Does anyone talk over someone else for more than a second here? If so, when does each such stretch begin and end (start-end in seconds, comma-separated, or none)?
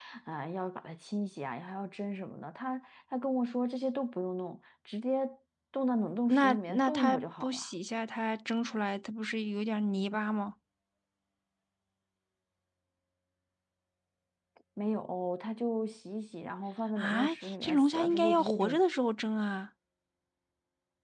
6.3-7.7, 17.0-18.8